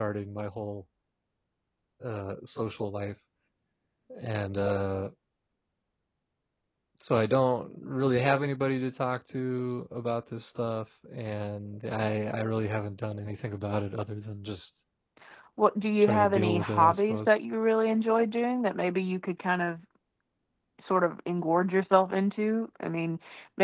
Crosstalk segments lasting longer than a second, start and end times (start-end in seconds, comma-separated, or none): 16.0-17.4